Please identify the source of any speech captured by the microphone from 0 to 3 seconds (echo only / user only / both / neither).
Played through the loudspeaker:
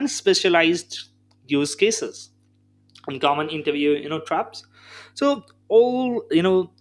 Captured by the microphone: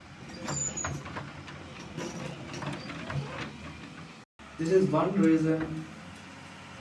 neither